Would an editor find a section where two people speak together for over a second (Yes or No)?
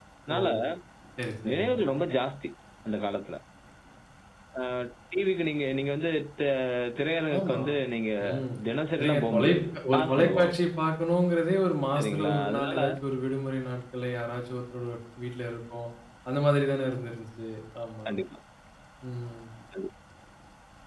Yes